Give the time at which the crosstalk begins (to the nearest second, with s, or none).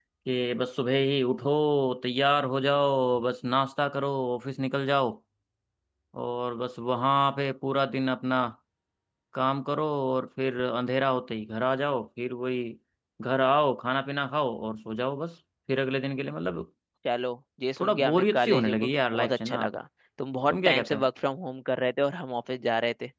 18 s